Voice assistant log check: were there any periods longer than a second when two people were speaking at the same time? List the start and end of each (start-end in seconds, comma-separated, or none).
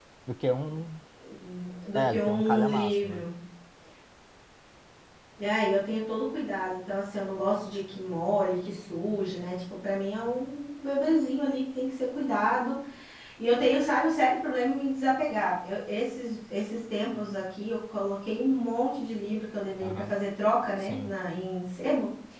1.9-3.2